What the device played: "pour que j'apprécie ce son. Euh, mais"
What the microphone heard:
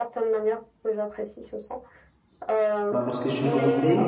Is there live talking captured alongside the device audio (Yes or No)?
Yes